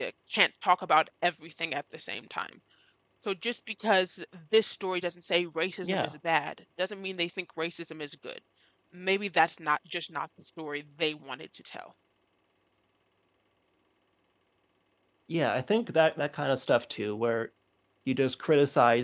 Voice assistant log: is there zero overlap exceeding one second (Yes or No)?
Yes